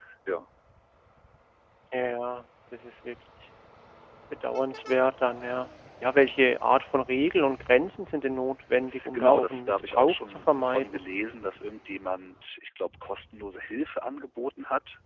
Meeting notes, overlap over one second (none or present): present